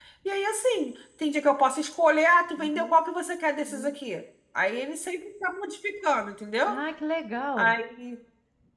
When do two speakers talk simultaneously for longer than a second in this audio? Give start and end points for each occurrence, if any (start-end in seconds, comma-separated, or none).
none